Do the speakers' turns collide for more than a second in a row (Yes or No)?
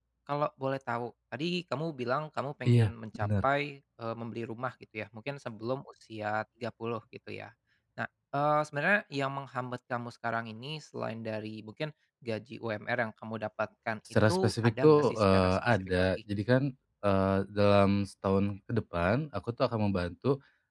Yes